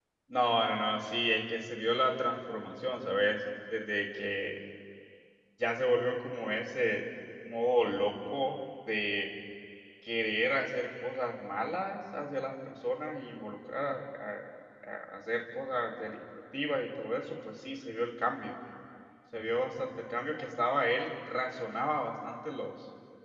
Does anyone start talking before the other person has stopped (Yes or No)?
No